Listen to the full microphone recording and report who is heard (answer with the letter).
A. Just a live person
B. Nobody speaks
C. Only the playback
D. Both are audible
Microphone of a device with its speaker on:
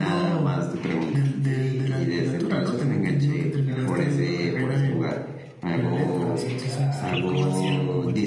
D